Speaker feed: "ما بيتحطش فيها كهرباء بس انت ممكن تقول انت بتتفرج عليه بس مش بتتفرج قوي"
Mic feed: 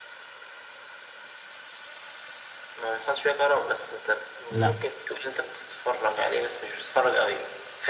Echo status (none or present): present